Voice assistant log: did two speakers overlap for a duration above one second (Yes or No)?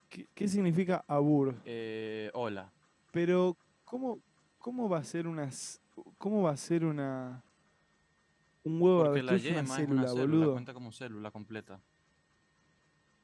Yes